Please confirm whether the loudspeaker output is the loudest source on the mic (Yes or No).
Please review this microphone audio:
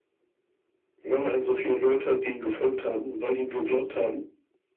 Yes